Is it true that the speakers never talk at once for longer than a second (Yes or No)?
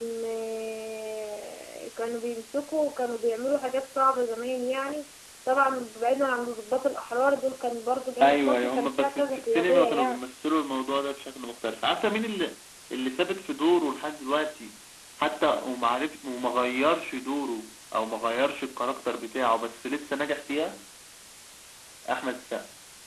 No